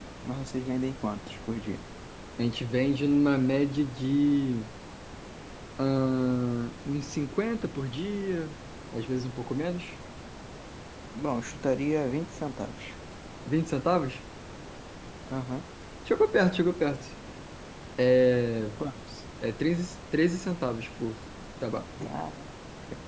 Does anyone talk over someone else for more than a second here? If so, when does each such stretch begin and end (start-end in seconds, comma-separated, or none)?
none